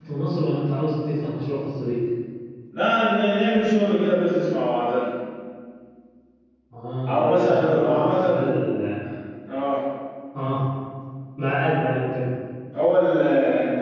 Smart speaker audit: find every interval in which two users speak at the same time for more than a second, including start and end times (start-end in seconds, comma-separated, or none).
7.1-8.5